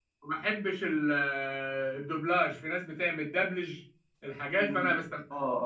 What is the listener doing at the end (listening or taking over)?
taking over